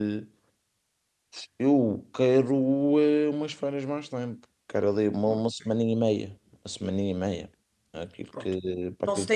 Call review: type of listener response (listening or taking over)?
taking over